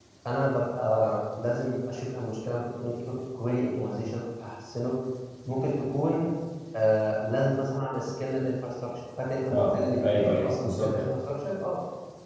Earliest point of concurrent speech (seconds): 9.5 s

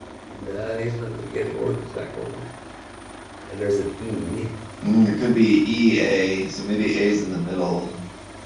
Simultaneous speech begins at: none

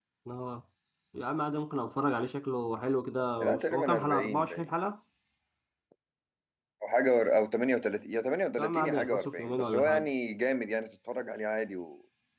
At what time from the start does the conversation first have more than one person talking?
3.4 s

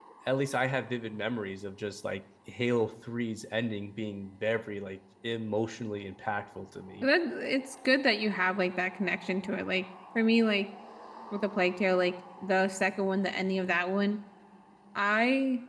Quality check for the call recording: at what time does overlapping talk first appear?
none

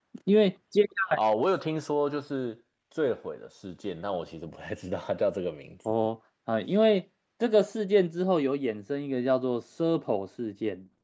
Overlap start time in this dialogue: none

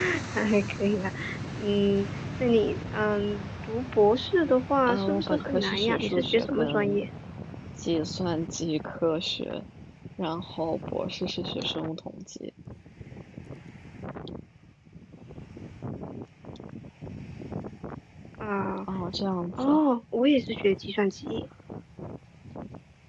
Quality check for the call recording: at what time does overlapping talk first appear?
4.9 s

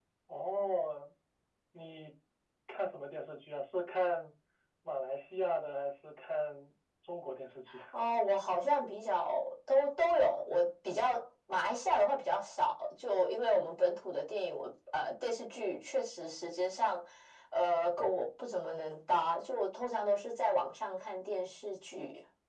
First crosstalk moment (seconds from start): none

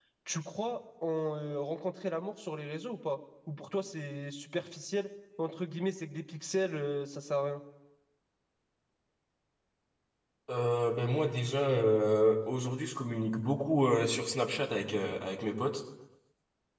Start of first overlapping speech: none

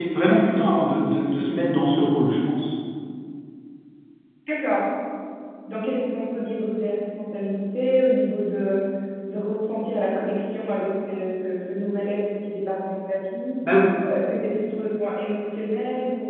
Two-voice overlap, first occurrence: none

